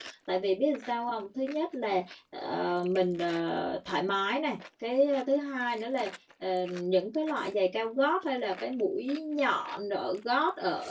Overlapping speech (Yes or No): No